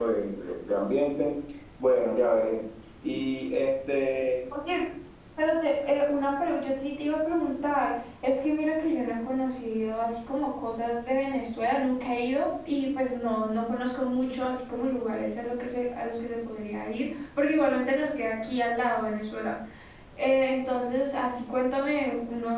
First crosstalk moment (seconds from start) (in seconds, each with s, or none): none